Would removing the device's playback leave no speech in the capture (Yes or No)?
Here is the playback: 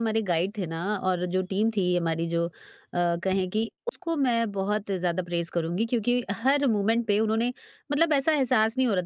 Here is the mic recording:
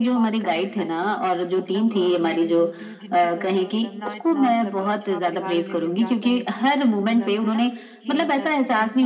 No